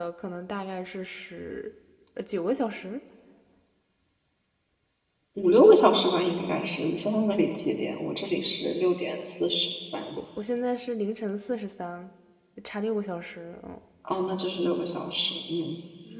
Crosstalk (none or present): none